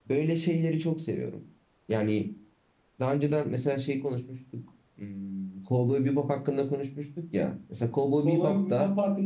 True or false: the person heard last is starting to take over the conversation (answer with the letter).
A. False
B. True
B